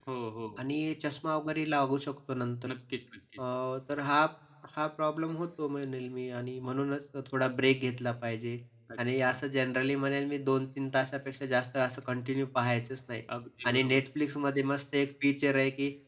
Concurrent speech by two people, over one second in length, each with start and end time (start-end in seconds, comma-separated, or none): none